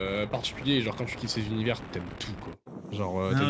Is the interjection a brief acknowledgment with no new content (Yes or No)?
Yes